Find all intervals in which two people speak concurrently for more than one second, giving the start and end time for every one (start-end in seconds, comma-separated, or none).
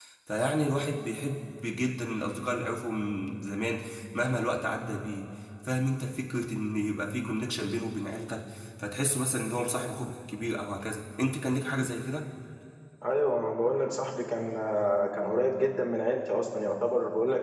none